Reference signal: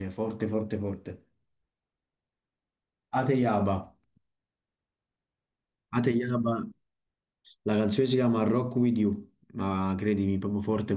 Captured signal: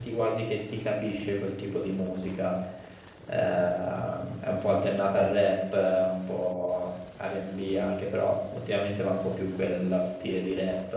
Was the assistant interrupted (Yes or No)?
Yes